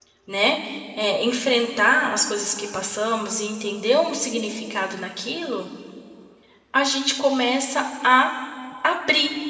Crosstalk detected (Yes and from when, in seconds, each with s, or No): No